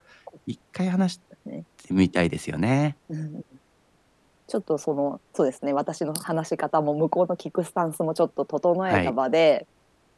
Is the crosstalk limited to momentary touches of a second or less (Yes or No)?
Yes